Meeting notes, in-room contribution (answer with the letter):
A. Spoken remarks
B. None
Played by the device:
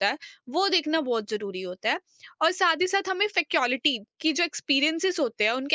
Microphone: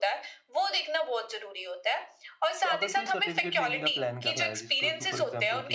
A